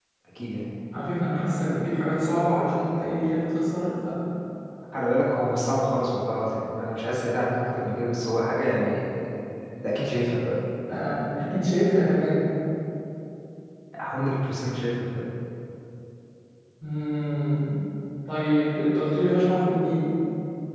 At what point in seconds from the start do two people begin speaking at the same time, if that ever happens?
none

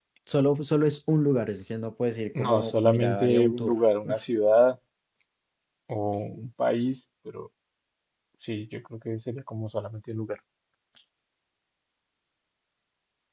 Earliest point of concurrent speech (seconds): 2.4 s

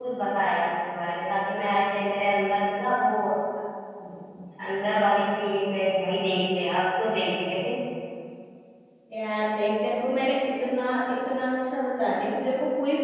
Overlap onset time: none

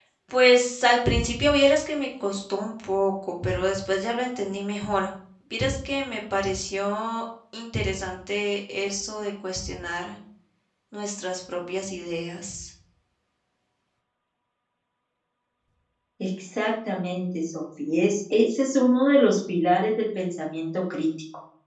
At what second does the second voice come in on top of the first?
none

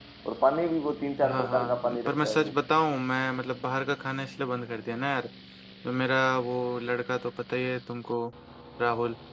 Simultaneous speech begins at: 1.2 s

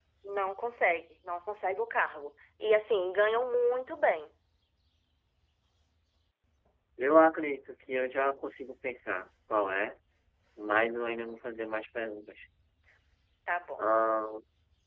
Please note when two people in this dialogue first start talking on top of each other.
none

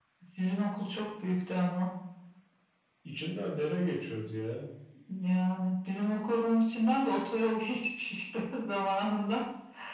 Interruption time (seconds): none

